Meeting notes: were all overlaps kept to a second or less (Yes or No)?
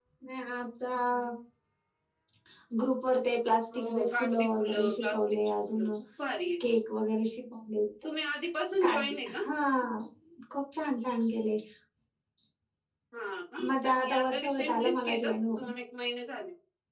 No